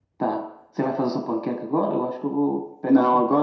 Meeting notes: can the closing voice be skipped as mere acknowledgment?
No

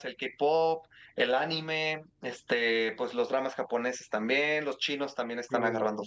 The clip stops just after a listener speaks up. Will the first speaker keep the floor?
Yes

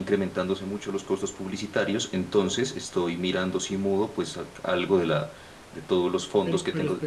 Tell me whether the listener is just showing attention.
No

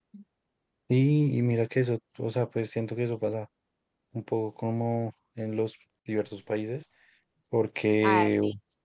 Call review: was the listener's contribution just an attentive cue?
No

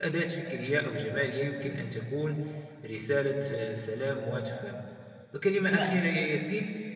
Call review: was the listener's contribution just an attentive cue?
Yes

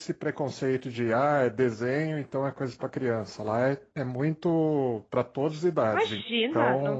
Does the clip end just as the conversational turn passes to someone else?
Yes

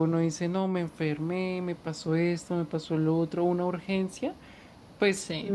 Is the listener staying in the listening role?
Yes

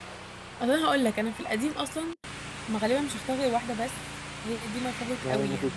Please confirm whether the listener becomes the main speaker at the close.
Yes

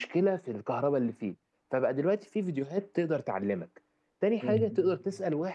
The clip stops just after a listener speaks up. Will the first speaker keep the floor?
Yes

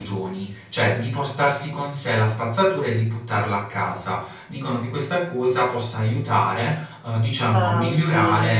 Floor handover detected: No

